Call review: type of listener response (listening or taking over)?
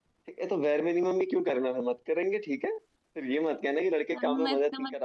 taking over